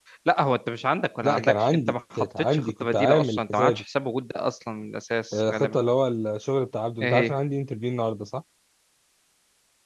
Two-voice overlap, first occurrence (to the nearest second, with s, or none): 1 s